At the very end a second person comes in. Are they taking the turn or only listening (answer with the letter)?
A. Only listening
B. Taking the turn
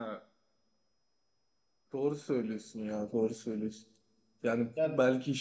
A